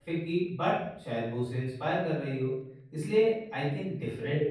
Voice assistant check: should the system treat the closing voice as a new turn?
No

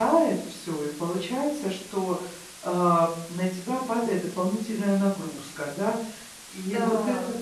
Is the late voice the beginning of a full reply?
No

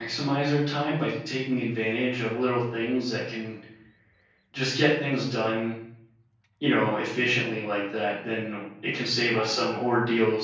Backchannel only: Yes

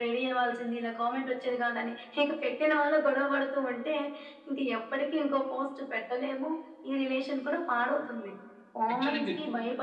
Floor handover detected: No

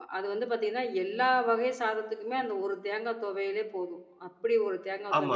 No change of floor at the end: No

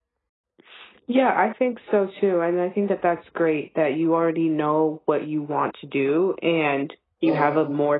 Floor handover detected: No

